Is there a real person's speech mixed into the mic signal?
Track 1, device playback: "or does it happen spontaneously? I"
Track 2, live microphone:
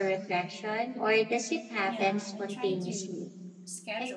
Yes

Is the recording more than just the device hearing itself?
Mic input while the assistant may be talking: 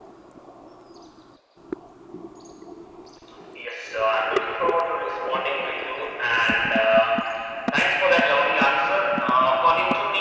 No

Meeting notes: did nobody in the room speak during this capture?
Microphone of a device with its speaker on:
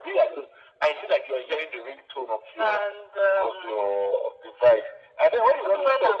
Yes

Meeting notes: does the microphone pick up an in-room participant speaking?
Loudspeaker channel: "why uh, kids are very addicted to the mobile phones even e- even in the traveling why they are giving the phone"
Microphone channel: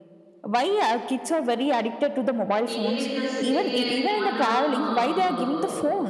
Yes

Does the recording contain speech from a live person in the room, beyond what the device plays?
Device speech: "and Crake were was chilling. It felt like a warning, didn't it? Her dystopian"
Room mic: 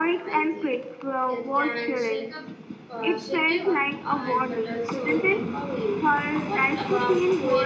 Yes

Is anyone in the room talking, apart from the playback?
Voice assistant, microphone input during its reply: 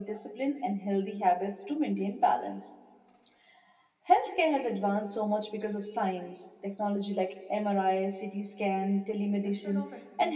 Yes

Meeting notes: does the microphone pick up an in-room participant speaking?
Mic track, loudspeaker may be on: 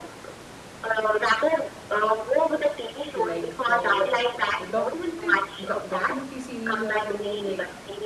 Yes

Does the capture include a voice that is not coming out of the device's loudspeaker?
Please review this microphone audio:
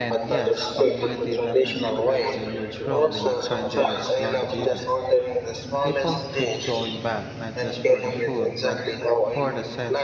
Yes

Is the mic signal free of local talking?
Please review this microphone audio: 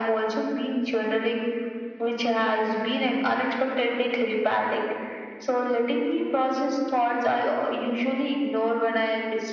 Yes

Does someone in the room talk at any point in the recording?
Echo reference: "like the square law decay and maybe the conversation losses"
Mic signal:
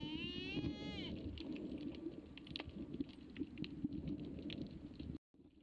No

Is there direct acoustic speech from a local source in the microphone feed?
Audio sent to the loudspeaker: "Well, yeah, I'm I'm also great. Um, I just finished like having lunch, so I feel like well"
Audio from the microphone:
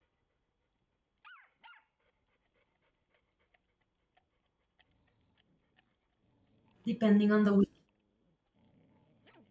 Yes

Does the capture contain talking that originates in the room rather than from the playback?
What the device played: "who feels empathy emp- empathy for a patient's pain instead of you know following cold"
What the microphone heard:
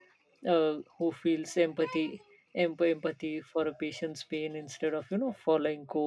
No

